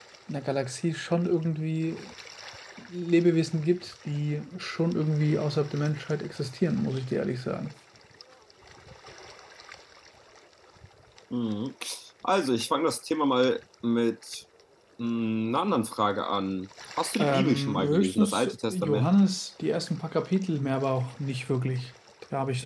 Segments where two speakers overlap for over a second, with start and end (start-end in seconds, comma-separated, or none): 17.2-19.1